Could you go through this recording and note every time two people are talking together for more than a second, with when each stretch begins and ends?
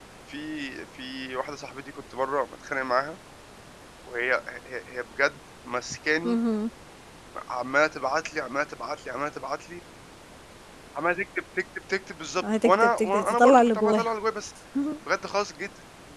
12.4-14.0

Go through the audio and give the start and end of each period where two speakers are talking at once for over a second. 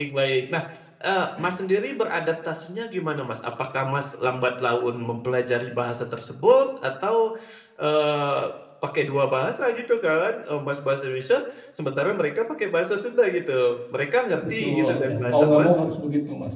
14.5-15.7

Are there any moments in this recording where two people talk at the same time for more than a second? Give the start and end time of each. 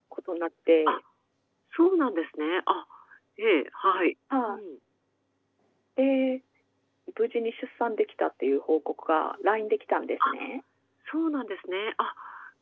none

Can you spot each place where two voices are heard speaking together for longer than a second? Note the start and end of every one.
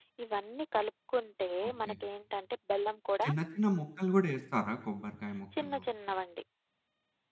none

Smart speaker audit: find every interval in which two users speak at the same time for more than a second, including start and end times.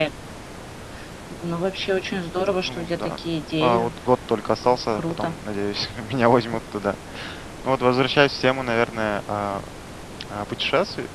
none

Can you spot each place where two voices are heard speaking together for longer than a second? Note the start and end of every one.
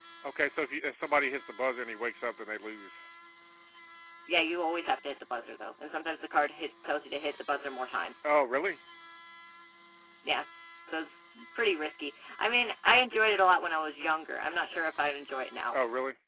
none

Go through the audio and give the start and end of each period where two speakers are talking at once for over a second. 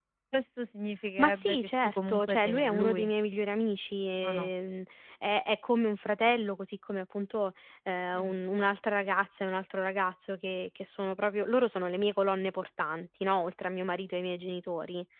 1.2-3.1

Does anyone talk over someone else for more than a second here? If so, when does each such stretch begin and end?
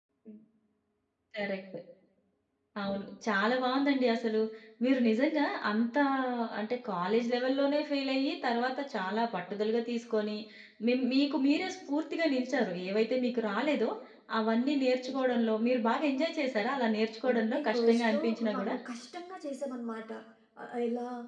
17.3-18.8

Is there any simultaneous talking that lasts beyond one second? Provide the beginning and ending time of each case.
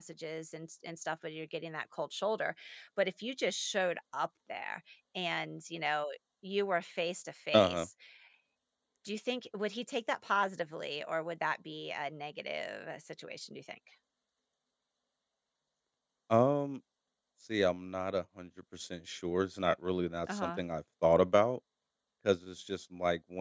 none

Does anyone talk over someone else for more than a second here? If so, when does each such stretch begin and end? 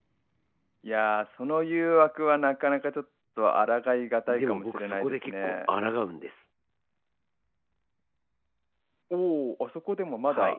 4.3-5.7

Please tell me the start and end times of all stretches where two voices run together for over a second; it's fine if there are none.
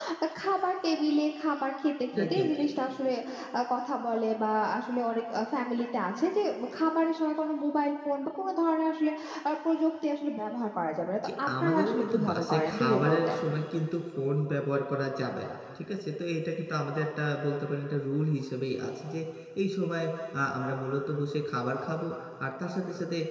11.2-13.4

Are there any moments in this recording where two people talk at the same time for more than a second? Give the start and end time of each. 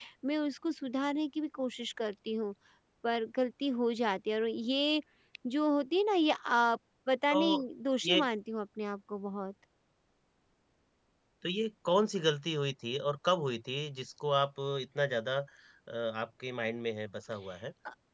none

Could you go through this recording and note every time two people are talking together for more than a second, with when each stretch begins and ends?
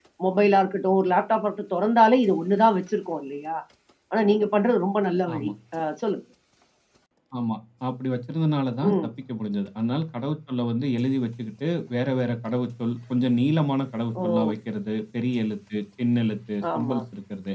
none

